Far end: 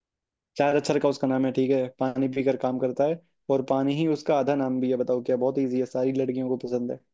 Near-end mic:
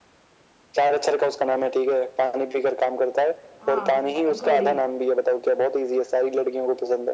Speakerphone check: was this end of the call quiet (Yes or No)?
No